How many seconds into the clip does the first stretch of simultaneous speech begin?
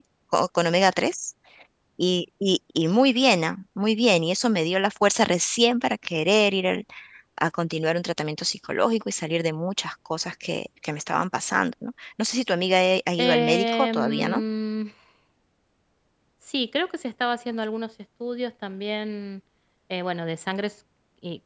13.2 s

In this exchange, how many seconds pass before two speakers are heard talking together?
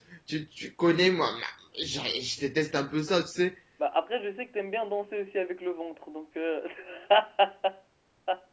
none

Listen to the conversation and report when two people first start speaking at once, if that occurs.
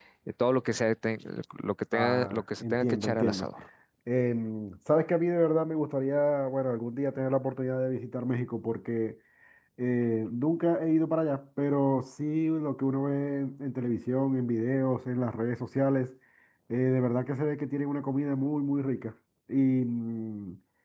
1.9 s

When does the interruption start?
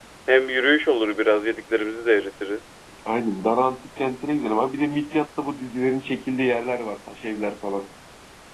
none

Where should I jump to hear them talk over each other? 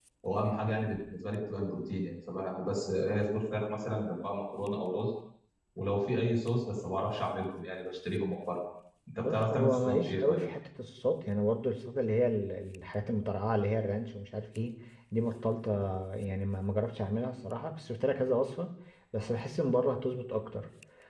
9.2 s

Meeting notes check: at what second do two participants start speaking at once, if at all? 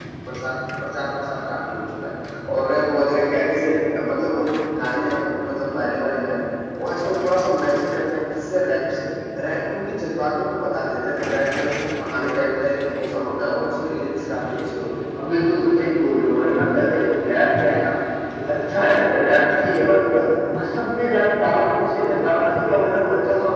none

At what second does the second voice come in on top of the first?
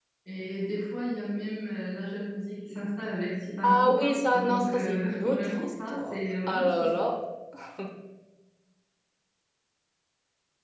3.6 s

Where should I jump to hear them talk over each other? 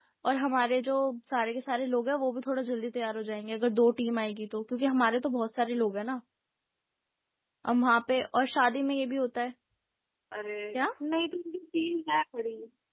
none

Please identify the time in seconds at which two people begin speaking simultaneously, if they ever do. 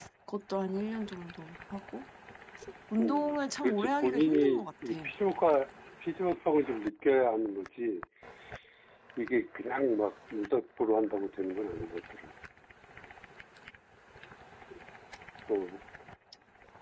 3.0 s

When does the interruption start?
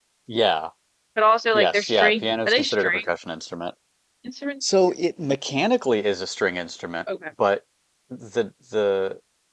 1.5 s

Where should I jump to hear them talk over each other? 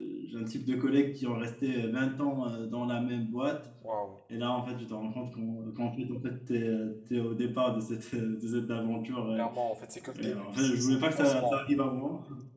10.2 s

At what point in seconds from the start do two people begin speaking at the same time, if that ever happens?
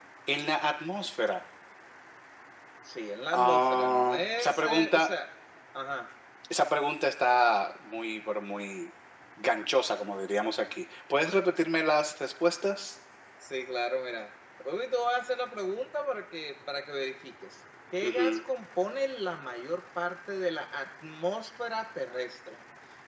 3.3 s

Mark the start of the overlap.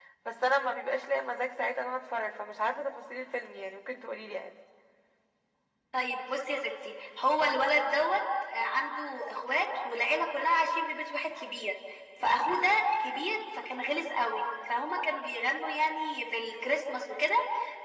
none

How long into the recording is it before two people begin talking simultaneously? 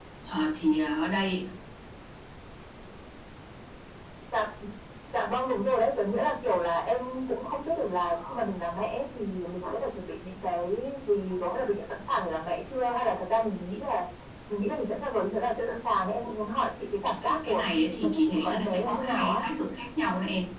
17.2 s

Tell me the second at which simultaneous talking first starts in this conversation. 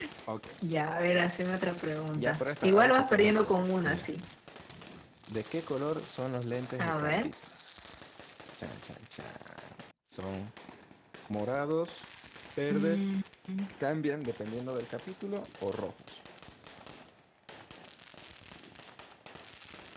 2.1 s

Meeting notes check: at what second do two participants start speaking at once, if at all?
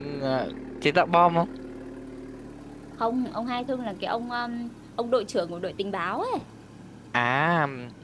none

